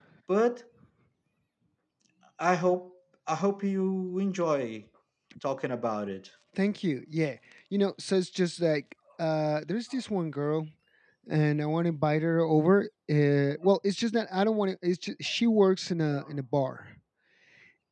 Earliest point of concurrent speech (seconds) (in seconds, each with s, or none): none